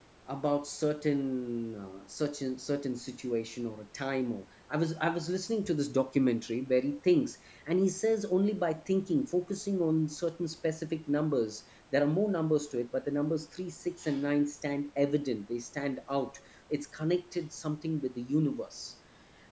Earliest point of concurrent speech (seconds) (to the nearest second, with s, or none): none